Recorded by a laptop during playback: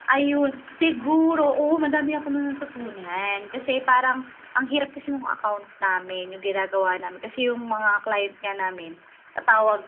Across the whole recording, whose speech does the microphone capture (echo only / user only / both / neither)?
echo only